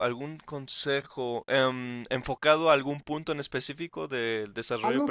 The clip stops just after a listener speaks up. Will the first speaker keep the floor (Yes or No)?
No